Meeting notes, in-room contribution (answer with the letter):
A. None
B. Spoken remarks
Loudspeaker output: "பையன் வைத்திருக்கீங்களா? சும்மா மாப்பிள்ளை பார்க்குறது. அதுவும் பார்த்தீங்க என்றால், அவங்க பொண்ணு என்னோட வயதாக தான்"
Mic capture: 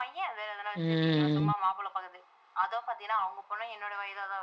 B